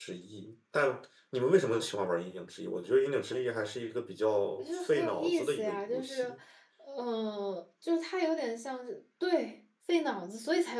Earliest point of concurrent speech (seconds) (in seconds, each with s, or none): 4.6 s